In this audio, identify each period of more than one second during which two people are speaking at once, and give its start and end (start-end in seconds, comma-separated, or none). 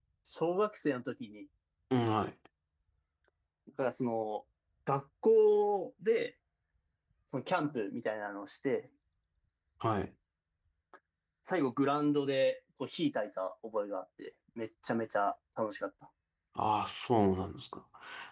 none